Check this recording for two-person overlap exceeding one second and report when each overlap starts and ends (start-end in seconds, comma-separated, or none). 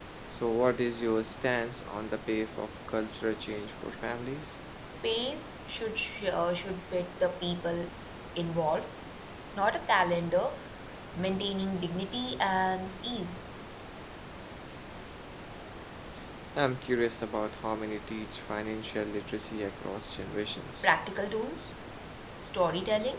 none